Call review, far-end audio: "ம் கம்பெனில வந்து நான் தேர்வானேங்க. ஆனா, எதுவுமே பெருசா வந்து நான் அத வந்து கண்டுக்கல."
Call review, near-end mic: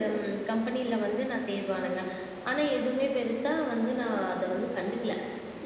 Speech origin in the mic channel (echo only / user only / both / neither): echo only